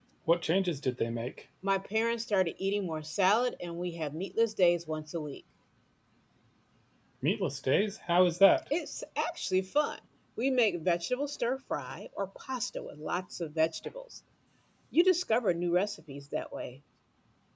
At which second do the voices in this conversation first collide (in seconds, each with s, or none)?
none